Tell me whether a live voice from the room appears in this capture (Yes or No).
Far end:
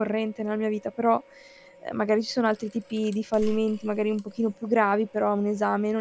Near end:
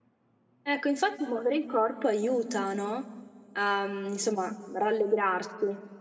Yes